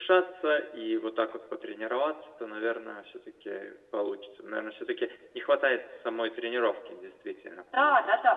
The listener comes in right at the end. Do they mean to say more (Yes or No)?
Yes